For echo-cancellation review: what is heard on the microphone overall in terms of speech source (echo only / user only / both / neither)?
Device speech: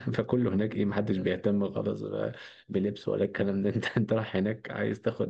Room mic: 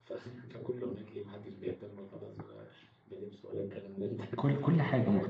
both